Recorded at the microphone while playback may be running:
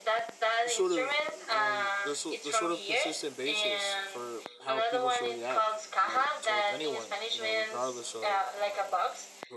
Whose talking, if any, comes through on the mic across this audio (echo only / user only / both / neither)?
both